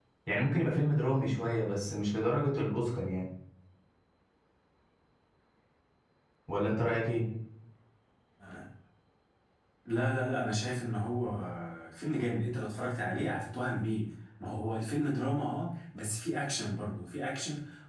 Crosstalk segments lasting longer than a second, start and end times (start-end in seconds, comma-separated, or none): none